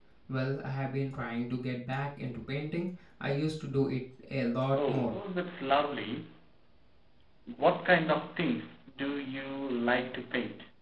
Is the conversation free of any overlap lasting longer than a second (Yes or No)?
Yes